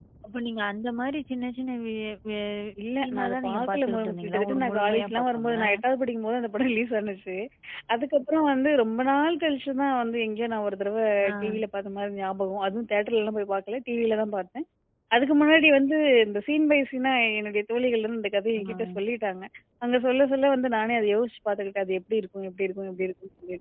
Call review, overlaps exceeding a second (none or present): present